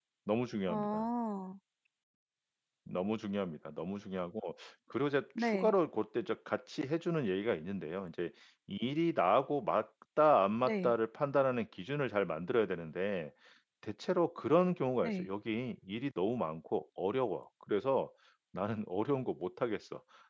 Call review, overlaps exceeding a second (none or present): none